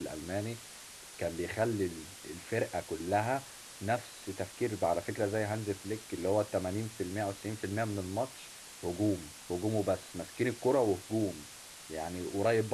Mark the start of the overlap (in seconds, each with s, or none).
none